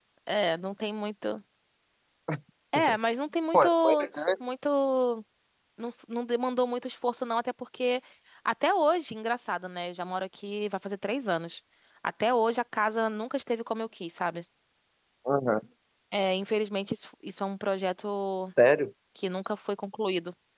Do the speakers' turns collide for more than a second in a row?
No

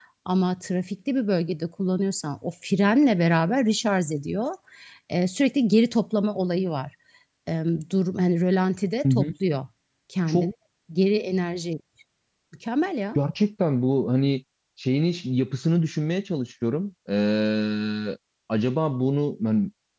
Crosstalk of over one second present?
No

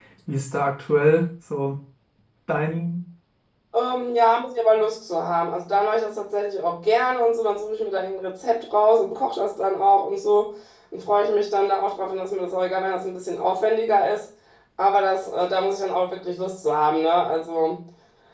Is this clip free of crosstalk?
Yes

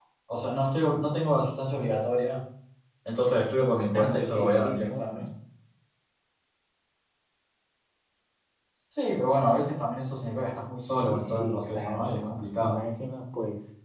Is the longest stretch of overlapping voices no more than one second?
No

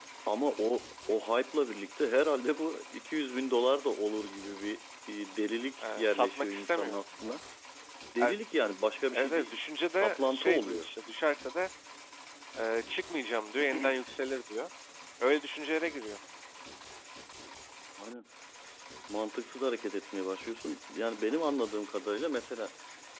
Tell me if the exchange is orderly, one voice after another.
No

